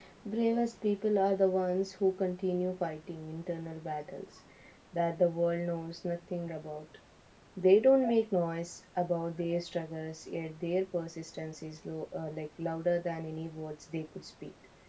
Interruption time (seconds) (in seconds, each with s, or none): none